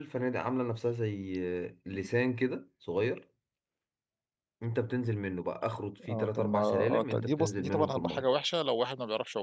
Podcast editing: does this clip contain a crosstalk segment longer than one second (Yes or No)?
Yes